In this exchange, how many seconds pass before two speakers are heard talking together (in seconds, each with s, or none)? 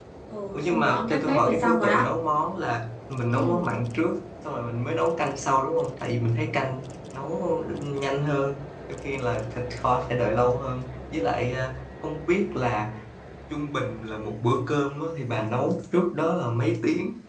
0.5 s